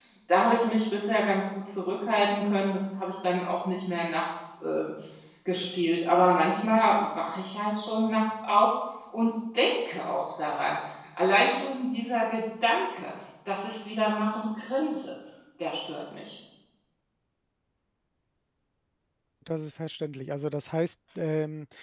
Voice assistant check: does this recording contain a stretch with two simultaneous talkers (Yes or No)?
No